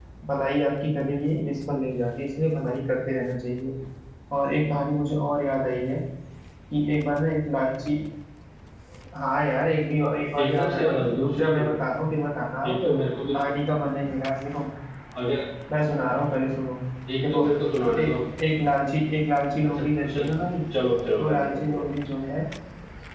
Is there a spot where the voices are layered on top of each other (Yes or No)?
Yes